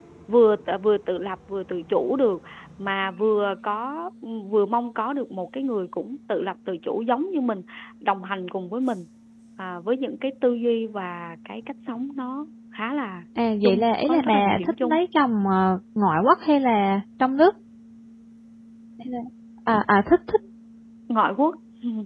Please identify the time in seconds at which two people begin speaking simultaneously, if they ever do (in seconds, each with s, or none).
13.6 s